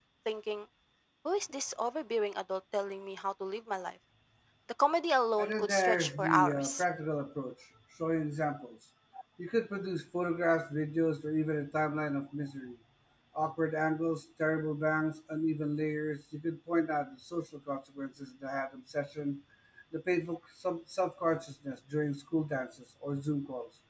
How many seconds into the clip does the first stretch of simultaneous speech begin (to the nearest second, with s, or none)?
5 s